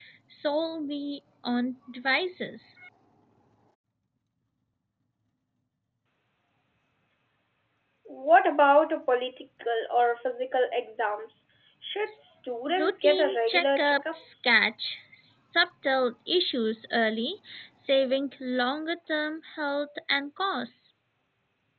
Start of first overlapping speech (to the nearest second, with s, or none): 13 s